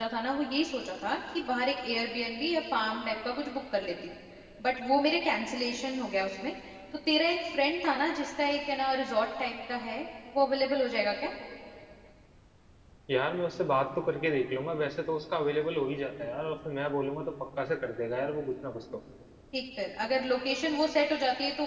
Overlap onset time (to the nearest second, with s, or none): none